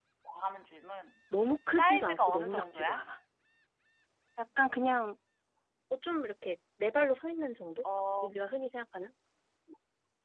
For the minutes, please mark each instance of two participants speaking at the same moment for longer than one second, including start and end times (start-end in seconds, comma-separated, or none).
1.8-3.0